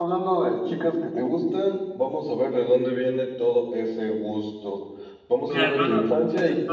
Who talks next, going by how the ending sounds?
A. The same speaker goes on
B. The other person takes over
A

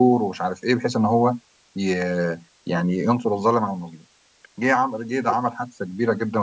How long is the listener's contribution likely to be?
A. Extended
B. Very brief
B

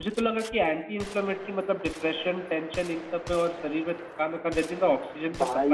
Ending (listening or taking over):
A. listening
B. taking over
A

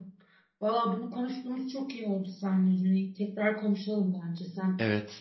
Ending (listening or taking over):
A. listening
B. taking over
B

